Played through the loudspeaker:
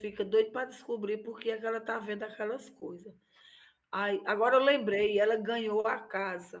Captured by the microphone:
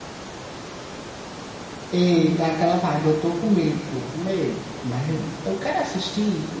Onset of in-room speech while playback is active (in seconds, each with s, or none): 1.9 s